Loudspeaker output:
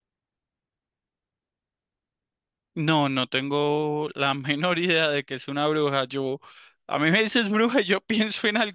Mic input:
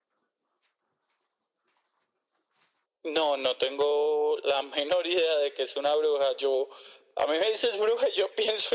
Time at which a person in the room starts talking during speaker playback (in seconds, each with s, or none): none